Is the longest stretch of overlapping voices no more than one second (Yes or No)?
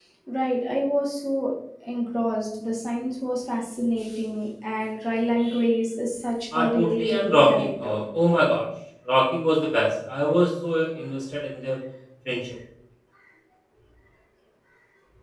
No